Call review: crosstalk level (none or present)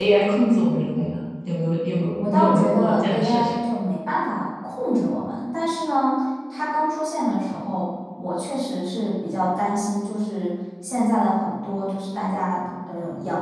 present